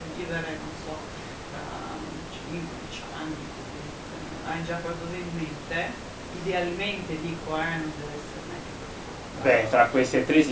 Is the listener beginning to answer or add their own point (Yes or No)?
Yes